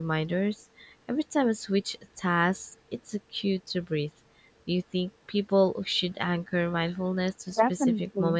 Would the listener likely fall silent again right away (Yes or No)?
No